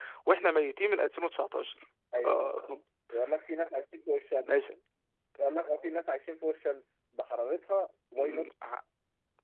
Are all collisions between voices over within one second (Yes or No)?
Yes